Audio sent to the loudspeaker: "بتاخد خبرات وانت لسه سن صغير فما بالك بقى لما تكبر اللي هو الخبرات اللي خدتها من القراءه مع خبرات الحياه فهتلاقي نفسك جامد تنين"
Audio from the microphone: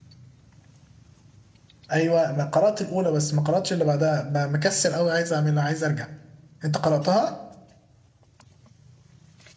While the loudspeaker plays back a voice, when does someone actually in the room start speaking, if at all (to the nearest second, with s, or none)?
2 s